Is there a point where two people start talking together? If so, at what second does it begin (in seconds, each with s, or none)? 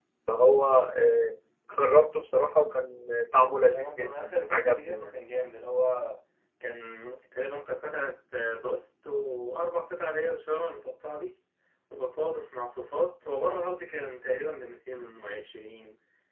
3.6 s